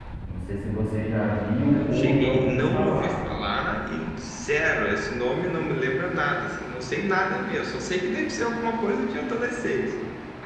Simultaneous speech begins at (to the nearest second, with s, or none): 2 s